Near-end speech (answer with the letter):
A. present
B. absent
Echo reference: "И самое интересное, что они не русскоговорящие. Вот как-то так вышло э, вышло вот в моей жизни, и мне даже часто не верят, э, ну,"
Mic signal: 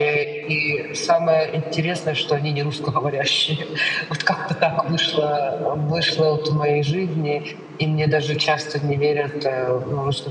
B